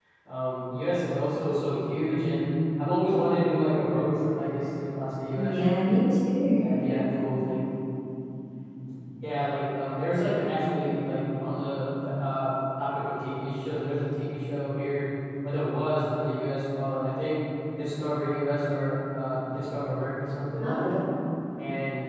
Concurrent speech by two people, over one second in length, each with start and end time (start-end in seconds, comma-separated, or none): none